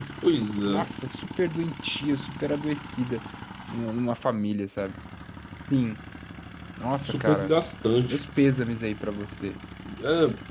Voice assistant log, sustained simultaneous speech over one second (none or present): none